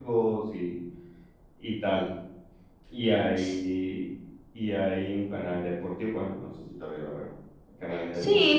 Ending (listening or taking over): taking over